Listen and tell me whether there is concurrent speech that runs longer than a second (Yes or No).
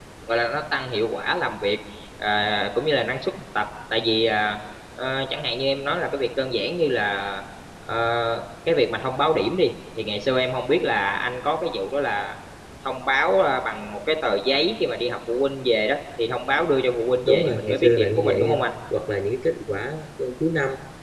Yes